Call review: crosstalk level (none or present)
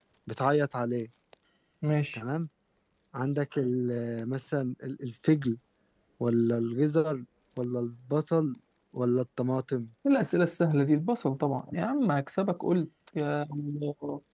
none